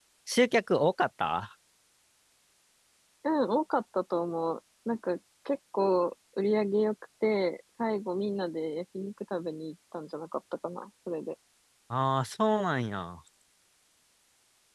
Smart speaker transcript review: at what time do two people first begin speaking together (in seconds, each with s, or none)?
none